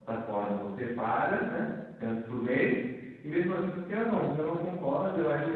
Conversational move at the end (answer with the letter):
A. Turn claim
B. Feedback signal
A